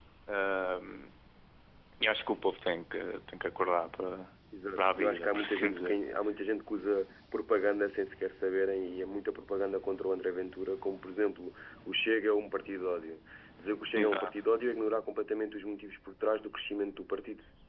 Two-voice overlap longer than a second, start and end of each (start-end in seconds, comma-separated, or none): 4.8-6.0